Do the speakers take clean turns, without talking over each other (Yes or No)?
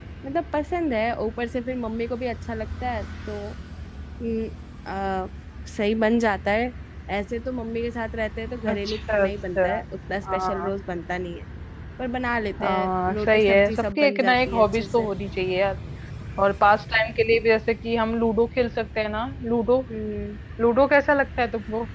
No